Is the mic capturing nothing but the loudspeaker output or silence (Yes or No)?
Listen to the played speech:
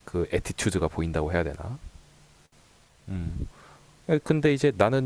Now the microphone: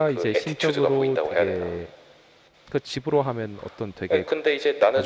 No